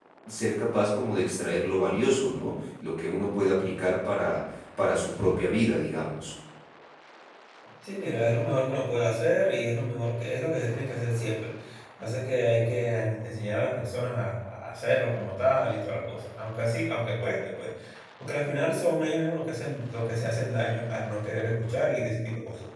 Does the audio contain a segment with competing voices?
No

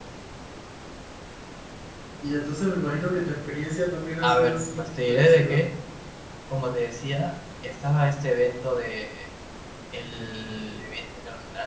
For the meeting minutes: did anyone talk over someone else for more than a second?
Yes, from 4.2 s

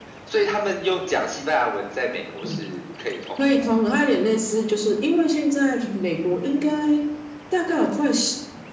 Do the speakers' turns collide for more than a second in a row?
No

